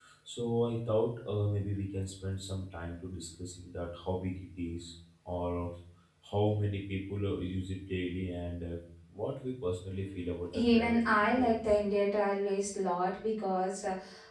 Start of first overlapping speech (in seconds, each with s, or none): 10.5 s